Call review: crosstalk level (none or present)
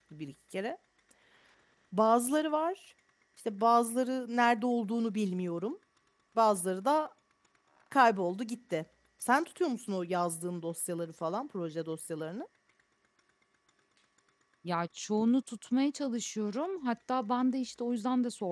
none